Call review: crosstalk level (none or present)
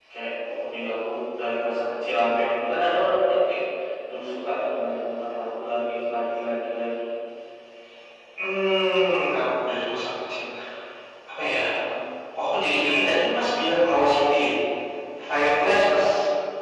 none